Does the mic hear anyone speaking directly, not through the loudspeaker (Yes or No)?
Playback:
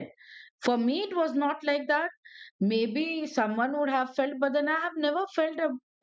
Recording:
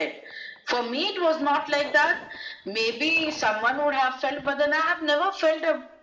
No